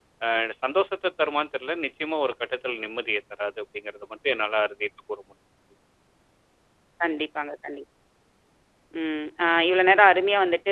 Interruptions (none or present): none